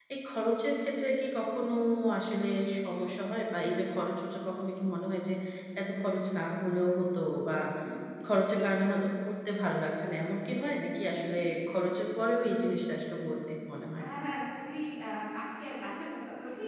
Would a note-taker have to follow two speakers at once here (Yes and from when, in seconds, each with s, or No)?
No